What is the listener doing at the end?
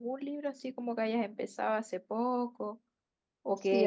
taking over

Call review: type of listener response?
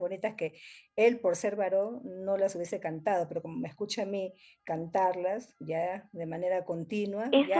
taking over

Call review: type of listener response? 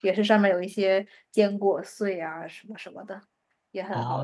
taking over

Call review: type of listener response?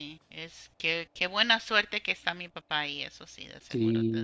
taking over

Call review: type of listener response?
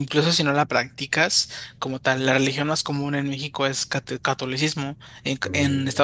listening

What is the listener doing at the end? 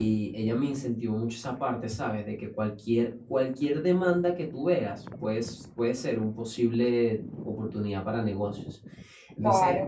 listening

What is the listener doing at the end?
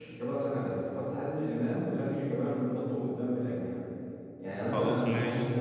listening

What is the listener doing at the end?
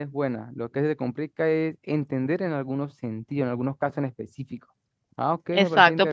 taking over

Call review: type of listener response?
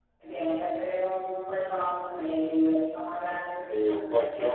taking over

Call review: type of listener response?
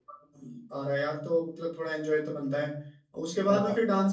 listening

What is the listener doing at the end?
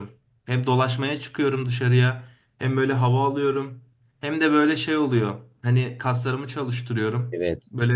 listening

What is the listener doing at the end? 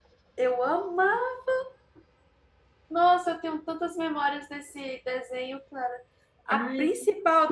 listening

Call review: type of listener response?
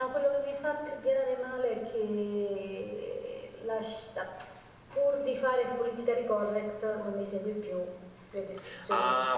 taking over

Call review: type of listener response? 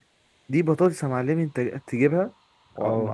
listening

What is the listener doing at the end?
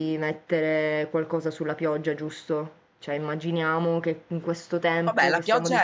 taking over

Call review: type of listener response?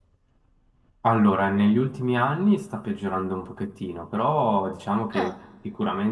listening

